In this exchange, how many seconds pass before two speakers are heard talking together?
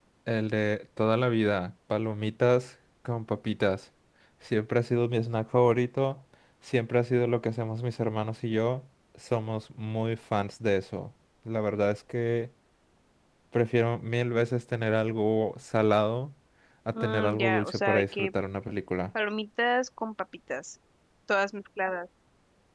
17.0 s

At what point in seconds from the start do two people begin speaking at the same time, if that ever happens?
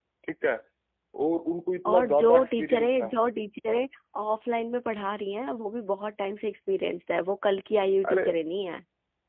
1.8 s

